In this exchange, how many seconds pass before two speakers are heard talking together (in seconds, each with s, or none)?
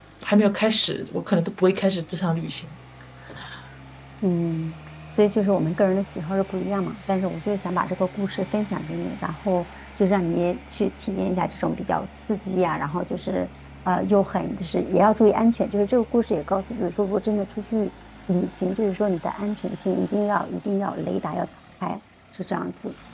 none